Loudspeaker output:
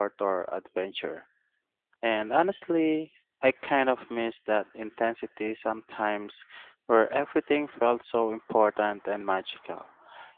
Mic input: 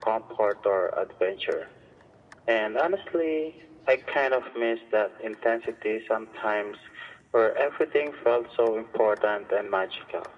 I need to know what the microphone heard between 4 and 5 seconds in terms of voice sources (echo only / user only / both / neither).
echo only